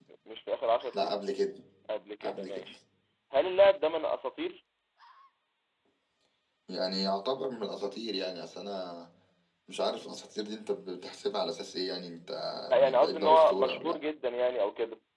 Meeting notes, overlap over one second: present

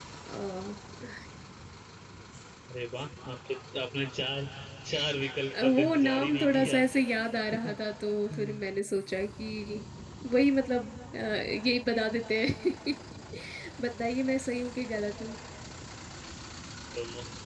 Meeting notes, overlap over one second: present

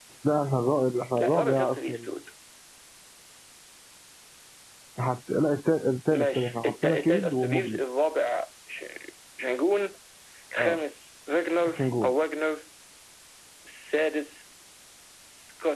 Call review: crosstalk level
present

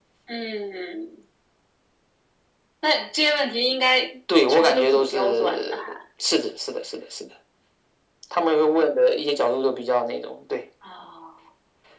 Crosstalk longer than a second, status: present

